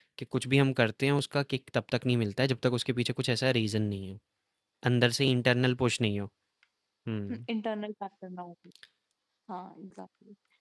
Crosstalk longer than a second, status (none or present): none